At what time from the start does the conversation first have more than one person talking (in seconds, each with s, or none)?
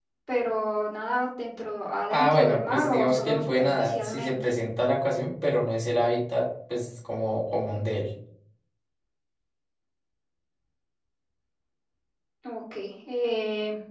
2.1 s